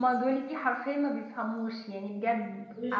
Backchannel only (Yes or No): No